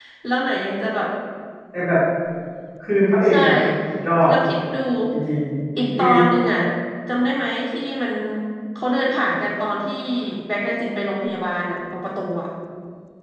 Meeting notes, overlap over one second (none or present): none